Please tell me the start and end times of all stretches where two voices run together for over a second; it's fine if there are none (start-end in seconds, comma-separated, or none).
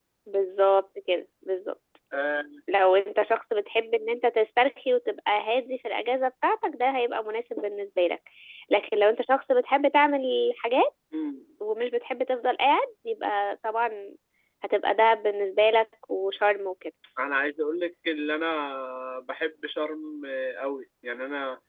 none